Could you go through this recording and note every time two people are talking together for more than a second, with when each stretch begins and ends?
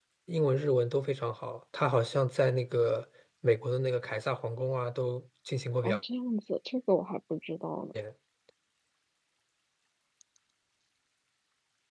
none

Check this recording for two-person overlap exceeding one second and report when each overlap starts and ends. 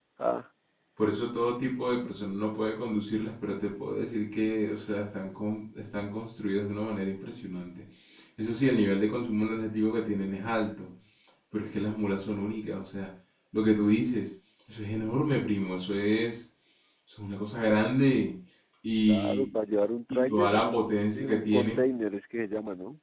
20.1-21.8

